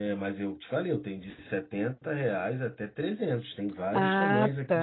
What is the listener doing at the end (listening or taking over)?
taking over